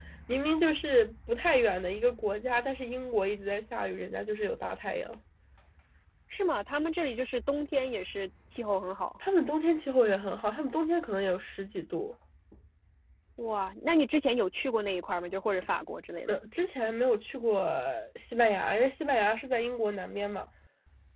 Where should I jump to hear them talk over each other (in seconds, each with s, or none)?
none